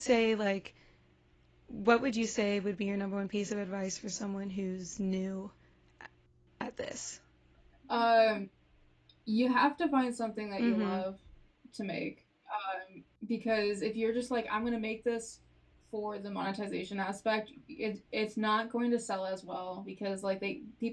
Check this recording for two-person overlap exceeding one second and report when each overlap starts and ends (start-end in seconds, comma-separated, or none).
none